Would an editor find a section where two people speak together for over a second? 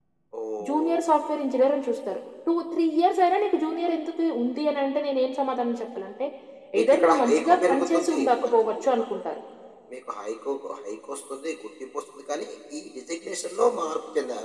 Yes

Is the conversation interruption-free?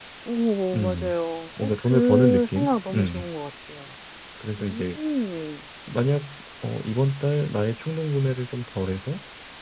No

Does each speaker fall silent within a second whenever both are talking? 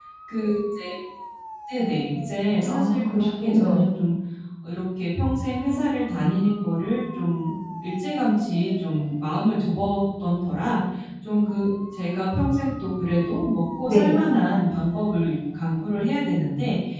No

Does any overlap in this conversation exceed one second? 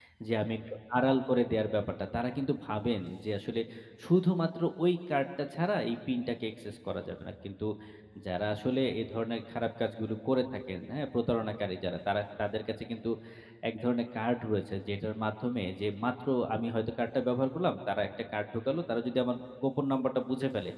No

